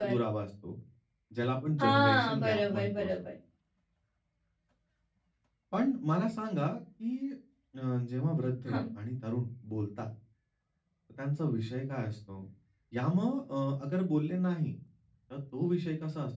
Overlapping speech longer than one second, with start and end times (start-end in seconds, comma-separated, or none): 1.8-3.1